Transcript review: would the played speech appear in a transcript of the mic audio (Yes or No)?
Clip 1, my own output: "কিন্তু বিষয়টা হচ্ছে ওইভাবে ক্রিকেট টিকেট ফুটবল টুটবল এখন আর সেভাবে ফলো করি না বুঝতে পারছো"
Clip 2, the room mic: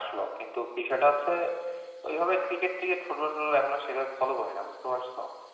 Yes